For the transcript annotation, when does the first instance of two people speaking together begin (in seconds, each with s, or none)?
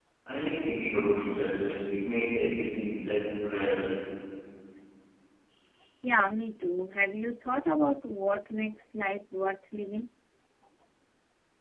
none